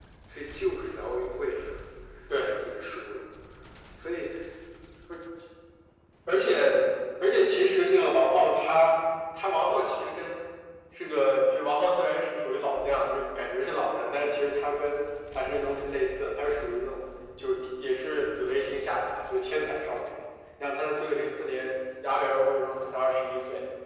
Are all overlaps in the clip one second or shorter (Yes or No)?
Yes